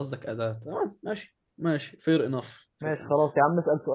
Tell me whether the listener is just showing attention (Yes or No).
No